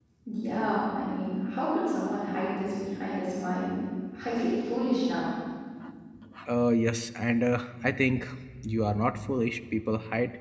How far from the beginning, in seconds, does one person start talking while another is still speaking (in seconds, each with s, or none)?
none